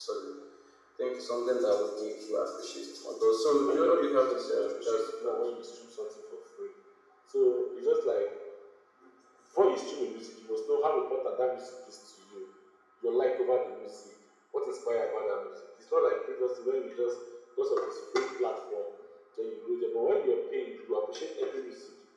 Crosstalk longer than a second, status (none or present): present